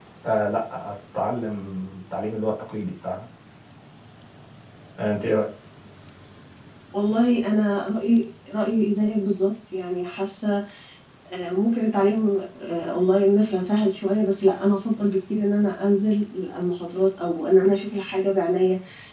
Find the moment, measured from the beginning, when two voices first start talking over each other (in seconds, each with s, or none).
none